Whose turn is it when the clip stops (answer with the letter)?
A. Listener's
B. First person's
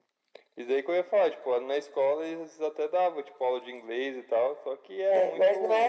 A